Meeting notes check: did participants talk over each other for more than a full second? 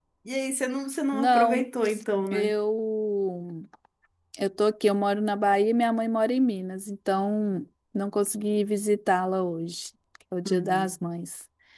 No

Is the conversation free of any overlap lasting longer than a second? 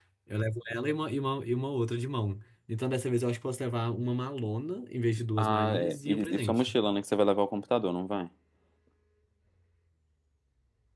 No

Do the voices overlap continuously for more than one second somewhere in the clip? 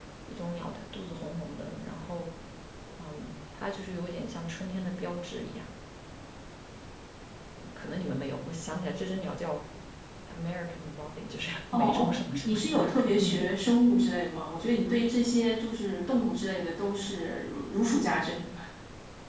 Yes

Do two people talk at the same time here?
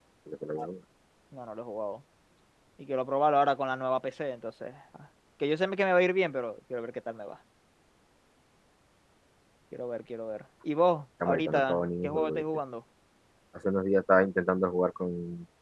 Yes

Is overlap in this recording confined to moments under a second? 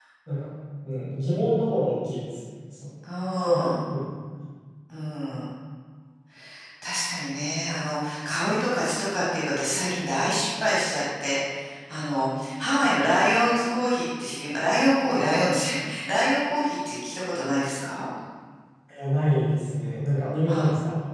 Yes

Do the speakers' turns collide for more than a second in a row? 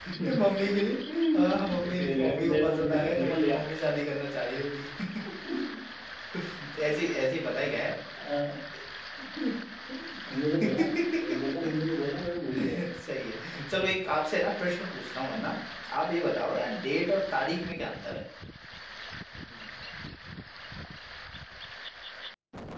Yes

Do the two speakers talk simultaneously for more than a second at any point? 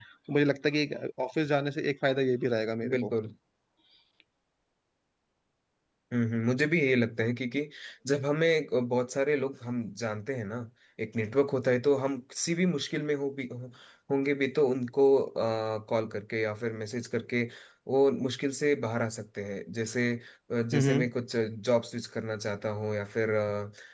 No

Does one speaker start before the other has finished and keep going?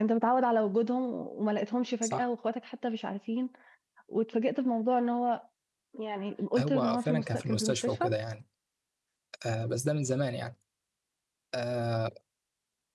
Yes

